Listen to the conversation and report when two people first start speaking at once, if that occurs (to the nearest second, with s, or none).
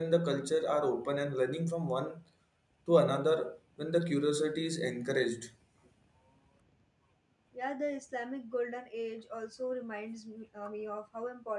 none